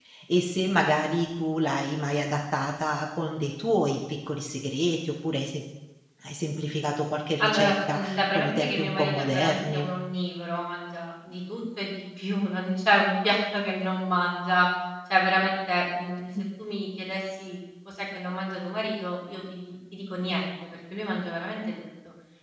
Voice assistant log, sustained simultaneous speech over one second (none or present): present